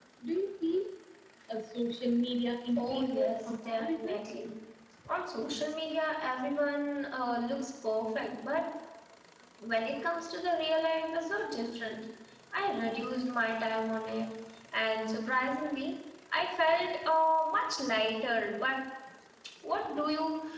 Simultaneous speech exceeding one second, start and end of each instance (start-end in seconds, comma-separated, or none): 2.8-4.2